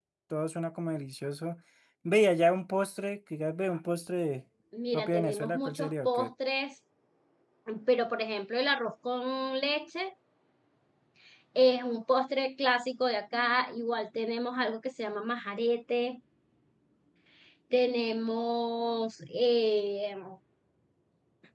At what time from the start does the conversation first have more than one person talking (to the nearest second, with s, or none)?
5 s